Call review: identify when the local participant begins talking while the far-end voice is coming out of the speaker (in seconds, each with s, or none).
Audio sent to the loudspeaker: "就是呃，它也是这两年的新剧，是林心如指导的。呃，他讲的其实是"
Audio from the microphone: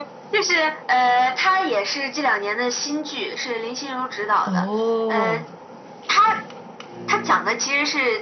4.4 s